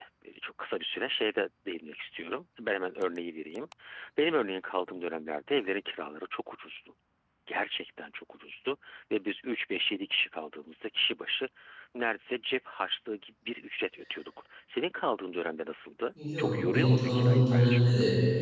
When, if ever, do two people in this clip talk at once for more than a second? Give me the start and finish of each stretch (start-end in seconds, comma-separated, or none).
16.4-17.8